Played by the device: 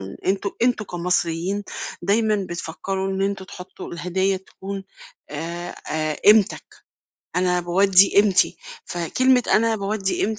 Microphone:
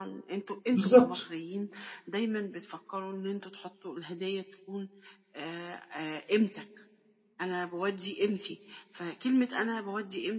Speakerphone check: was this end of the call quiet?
No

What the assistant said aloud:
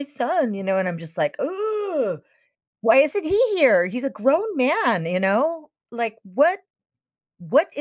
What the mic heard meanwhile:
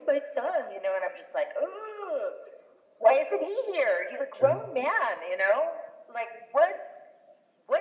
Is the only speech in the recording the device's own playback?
No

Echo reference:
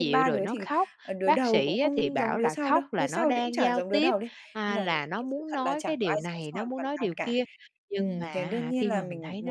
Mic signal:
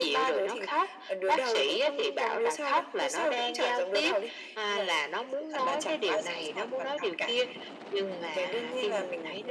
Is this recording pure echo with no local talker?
Yes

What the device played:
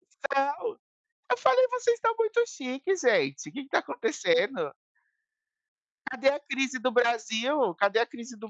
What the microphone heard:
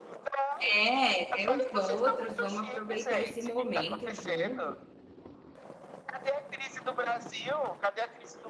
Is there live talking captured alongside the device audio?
Yes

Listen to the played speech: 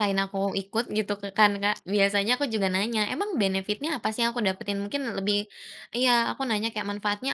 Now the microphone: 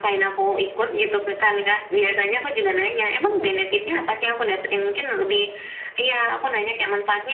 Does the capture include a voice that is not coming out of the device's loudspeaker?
No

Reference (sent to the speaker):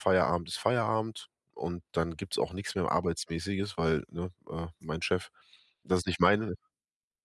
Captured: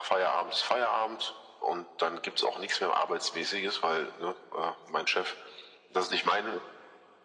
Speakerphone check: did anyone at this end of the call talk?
No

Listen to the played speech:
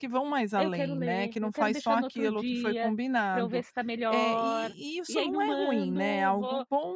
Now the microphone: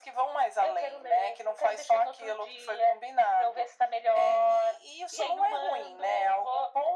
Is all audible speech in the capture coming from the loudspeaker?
Yes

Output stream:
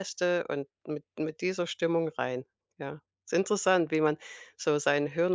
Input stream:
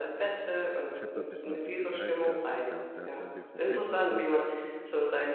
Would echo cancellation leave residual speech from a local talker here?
Yes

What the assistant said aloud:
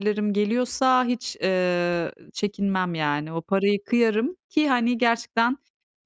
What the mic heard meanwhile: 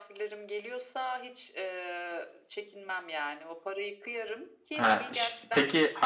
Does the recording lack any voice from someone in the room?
No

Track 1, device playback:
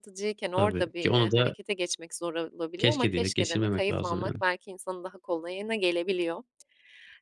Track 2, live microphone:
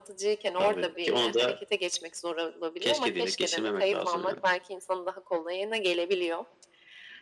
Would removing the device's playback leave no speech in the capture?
Yes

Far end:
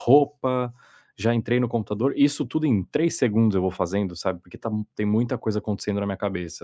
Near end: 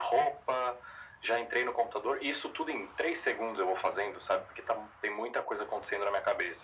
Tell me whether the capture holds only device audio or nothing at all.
Yes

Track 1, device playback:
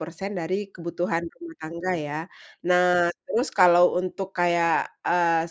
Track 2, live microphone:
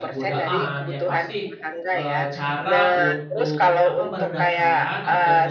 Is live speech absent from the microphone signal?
No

